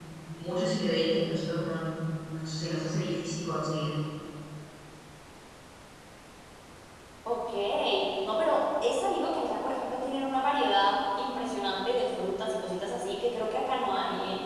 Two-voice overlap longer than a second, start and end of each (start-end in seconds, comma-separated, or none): none